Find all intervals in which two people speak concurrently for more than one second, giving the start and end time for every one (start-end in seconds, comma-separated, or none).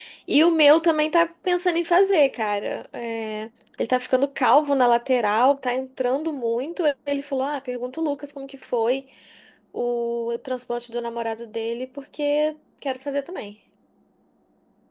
none